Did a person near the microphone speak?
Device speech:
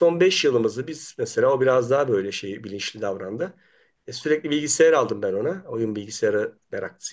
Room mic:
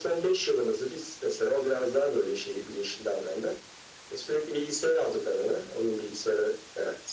No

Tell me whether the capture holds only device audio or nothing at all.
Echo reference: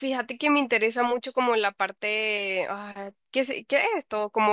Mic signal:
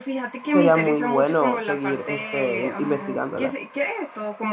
No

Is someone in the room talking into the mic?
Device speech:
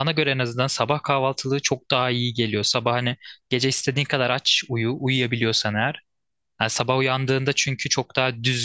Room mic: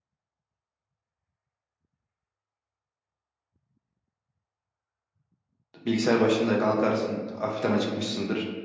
Yes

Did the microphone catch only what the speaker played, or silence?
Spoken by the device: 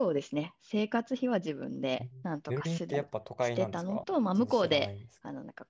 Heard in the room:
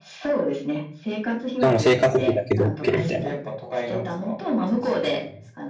No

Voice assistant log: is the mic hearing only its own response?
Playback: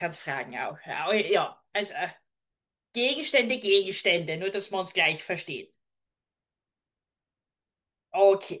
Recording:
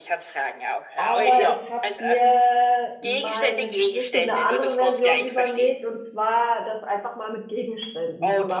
No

